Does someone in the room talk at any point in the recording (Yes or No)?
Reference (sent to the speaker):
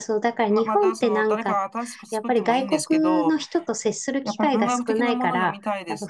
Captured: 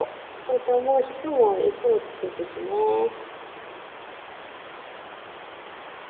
Yes